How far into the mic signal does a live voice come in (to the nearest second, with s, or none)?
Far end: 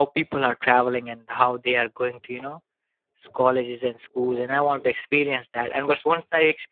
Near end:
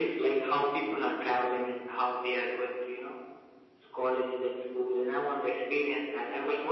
none